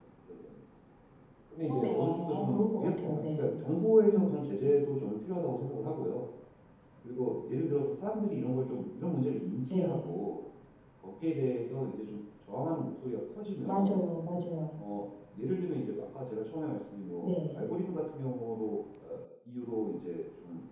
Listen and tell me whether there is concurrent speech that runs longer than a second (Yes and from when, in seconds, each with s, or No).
Yes, from 1.6 s